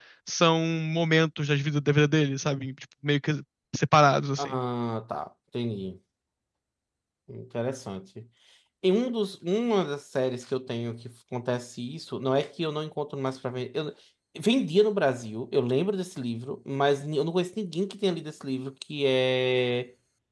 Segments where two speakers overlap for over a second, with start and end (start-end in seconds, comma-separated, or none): none